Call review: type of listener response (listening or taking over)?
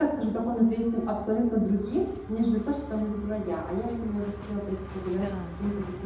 listening